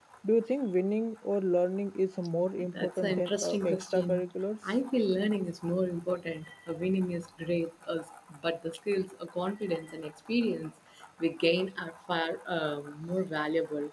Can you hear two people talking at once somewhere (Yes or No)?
Yes